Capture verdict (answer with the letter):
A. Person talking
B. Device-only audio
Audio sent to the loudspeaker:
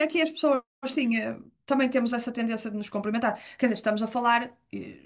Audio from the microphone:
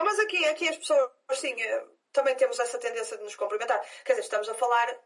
B